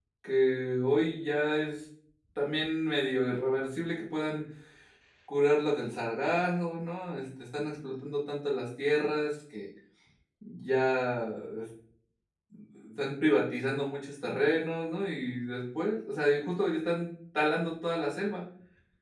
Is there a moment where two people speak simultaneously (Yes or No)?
No